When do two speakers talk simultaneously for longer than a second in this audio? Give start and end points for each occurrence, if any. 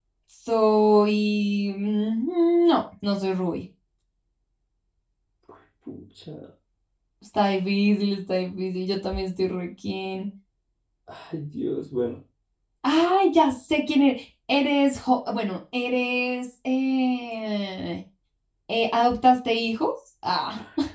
none

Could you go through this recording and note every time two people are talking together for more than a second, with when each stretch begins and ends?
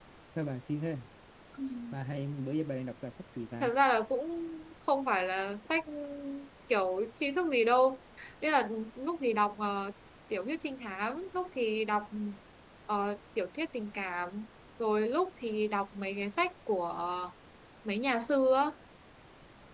none

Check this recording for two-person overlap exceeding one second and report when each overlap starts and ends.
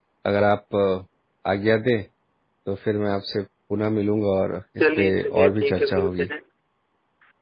4.8-6.3

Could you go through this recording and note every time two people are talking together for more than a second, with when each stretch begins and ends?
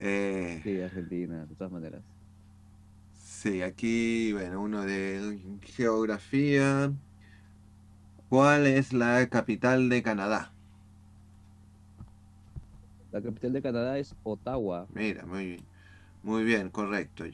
none

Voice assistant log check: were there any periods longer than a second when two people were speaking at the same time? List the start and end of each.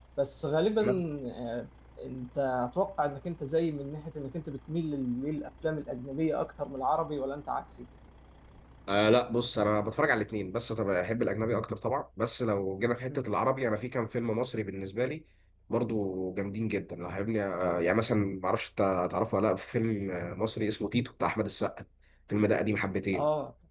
none

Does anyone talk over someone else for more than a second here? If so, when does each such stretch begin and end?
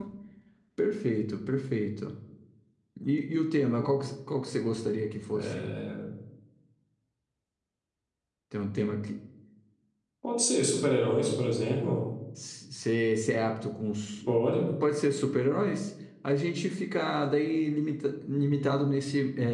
none

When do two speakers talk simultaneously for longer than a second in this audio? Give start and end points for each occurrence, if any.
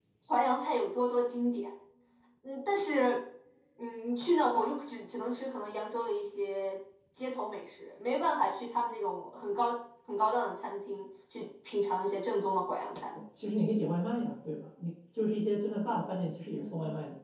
none

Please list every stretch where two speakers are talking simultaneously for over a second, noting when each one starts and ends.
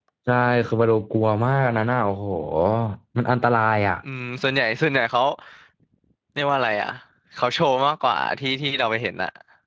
none

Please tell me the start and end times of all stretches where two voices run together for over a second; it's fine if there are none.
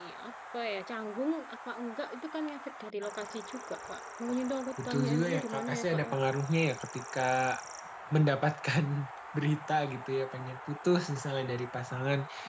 4.8-6.1

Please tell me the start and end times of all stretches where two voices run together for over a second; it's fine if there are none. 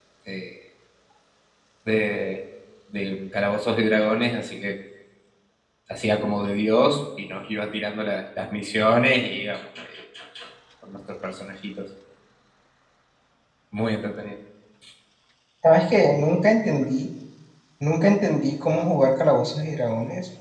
none

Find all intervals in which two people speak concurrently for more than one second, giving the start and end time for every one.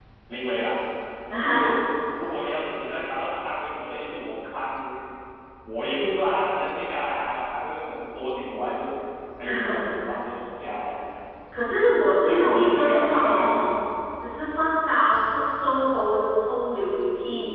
12.3-13.7

